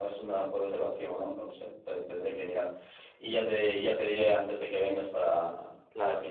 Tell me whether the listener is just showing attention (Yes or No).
No